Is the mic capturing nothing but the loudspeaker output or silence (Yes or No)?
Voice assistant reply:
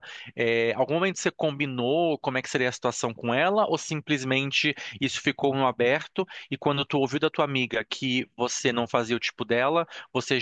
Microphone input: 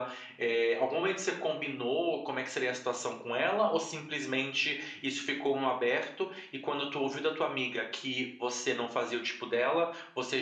Yes